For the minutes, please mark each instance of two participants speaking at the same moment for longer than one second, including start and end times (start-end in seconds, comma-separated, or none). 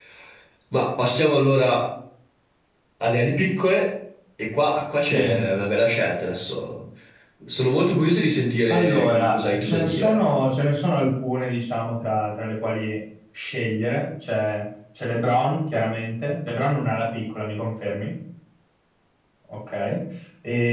8.7-10.2